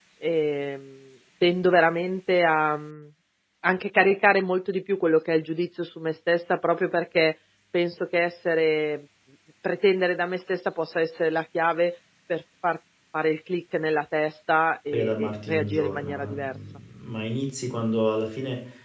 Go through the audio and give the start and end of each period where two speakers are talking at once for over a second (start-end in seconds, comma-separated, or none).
15.0-16.6